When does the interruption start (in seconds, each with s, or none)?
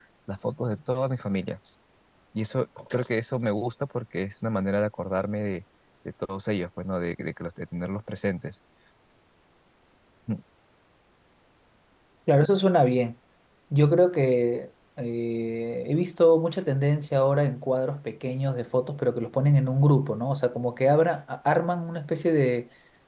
none